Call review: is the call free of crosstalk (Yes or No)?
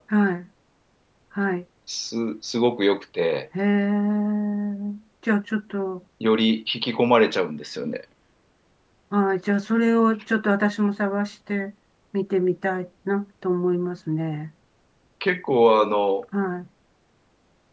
Yes